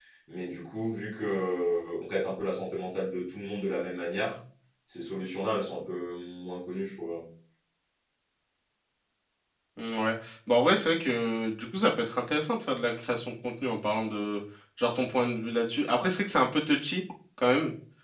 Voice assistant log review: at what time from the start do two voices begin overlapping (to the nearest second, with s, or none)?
none